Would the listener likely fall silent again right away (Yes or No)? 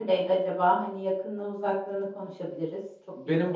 No